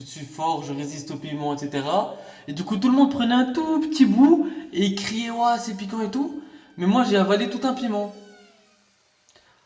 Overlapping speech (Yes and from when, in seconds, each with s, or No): No